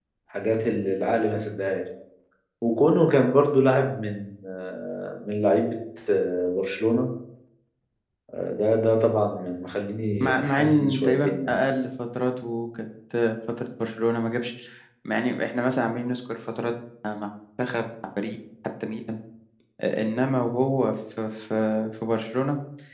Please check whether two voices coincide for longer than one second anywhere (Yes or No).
Yes